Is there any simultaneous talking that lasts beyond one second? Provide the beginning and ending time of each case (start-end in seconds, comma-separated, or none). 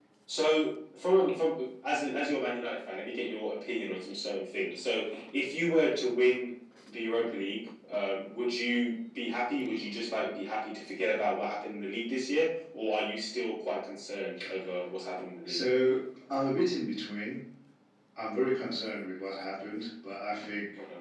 none